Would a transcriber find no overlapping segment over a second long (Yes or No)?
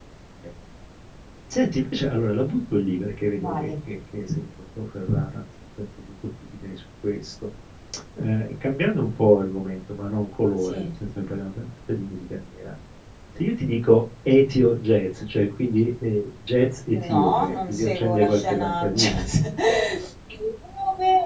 No